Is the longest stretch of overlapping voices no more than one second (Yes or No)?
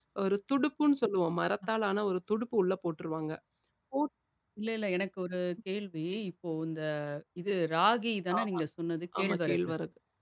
Yes